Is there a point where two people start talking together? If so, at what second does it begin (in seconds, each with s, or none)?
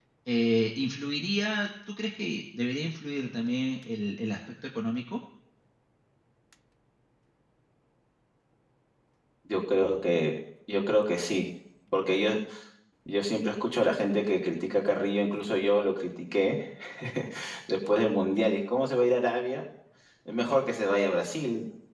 none